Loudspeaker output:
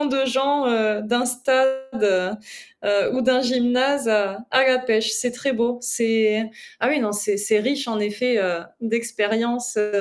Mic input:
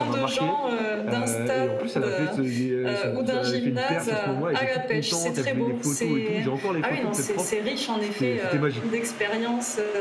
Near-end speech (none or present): present